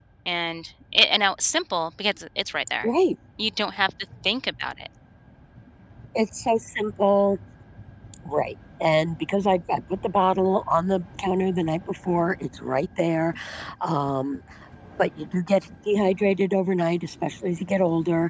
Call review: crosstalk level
none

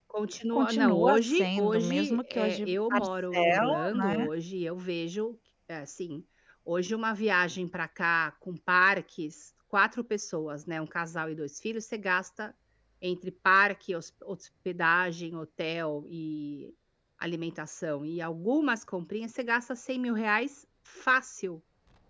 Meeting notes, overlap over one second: present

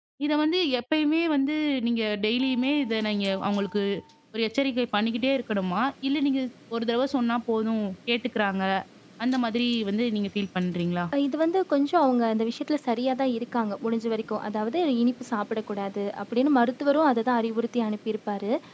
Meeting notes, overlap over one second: none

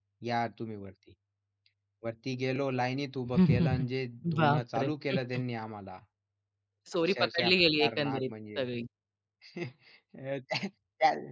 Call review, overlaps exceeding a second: present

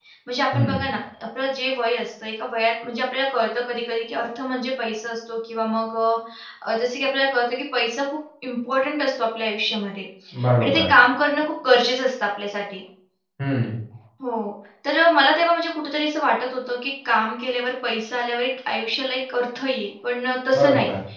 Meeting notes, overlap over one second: none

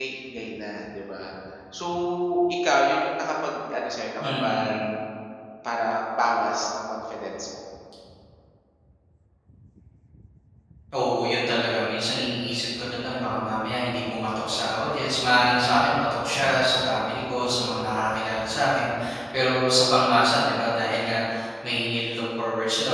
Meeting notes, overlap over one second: none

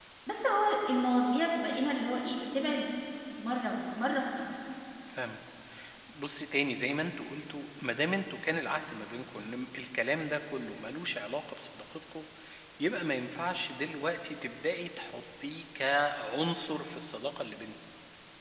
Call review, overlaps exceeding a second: none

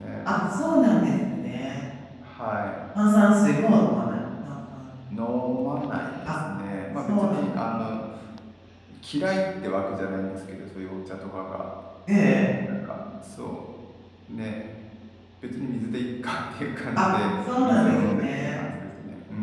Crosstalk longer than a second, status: present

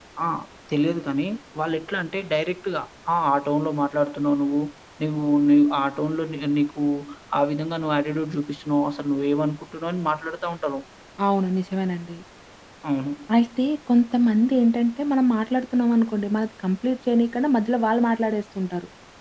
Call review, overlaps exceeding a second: none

